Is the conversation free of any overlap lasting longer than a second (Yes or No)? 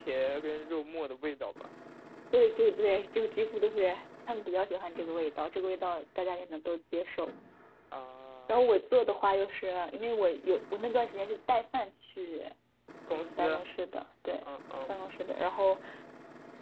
Yes